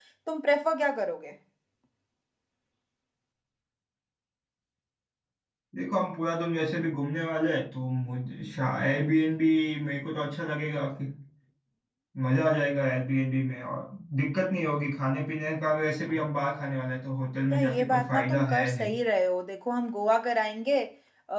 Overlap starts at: 17.5 s

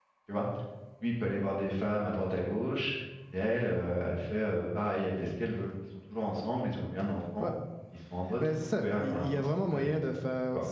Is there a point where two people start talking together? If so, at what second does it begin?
8.4 s

